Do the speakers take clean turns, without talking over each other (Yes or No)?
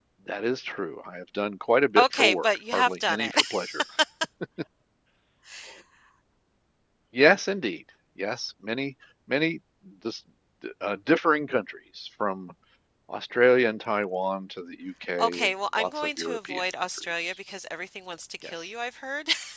No